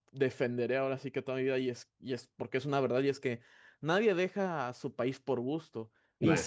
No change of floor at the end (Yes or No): Yes